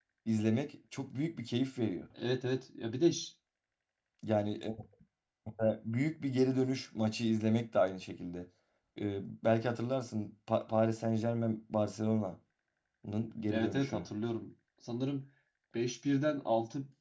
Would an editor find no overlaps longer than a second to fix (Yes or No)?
Yes